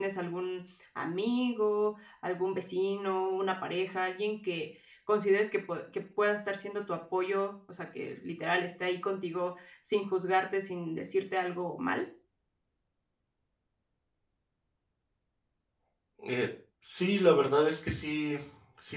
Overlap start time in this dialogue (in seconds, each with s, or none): none